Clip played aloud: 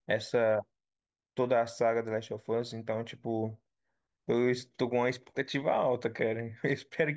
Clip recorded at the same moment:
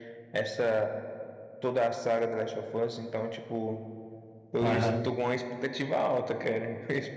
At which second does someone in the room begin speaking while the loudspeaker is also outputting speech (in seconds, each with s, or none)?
4.6 s